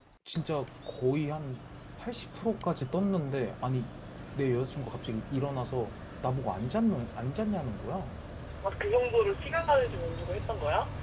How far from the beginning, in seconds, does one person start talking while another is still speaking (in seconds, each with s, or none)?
none